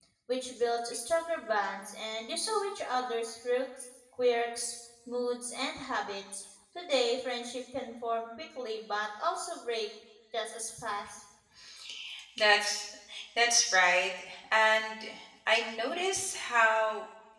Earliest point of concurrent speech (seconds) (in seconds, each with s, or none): none